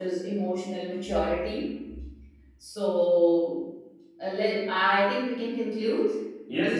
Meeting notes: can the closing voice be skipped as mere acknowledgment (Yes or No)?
No